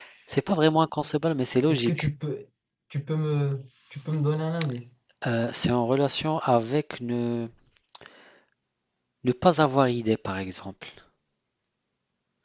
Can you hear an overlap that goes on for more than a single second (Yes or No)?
No